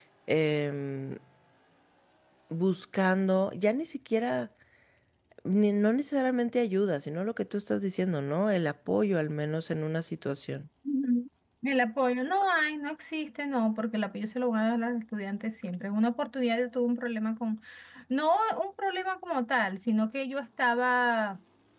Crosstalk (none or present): none